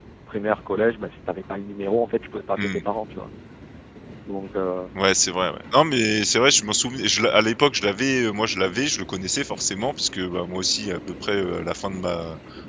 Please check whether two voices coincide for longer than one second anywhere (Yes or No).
No